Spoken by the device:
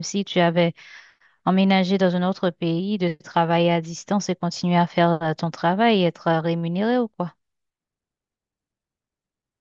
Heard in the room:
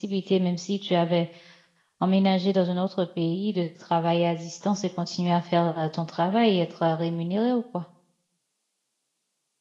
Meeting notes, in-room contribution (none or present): none